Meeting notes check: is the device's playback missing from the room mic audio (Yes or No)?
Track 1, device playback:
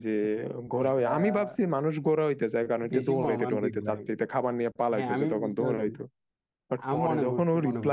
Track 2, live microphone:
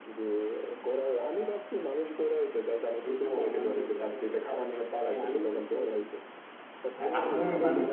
No